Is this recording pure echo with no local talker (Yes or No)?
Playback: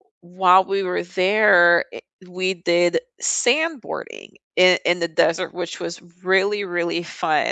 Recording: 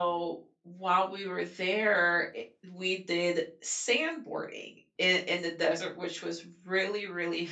Yes